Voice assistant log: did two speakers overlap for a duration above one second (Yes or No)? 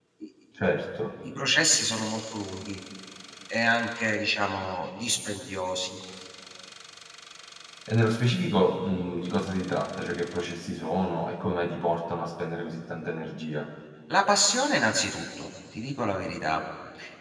No